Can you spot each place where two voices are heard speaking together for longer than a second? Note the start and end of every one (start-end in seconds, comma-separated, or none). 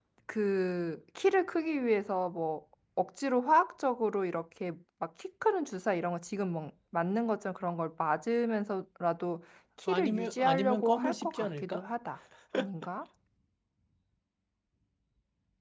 9.9-11.8